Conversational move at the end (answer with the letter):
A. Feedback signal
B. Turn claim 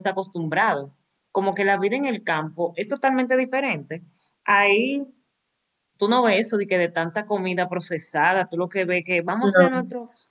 A